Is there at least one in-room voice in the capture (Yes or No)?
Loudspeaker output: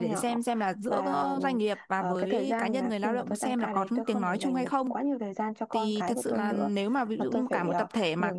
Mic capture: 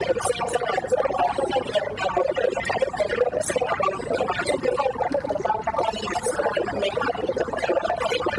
No